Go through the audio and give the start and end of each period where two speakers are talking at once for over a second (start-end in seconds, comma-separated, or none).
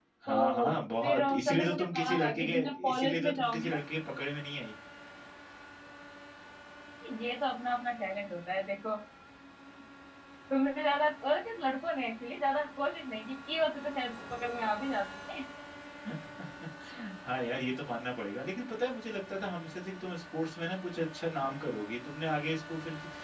1.0-3.8